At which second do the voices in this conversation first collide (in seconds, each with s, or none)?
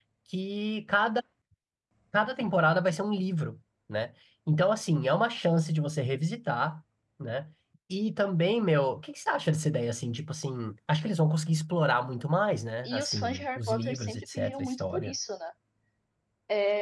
12.8 s